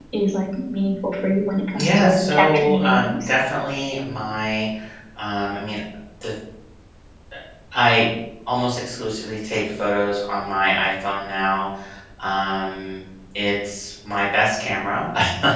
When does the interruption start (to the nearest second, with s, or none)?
2 s